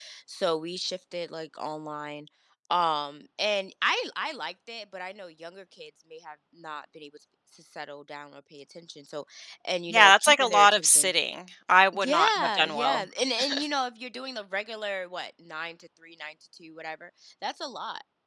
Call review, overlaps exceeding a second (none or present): present